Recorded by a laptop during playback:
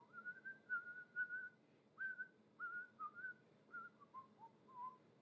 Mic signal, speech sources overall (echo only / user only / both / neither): neither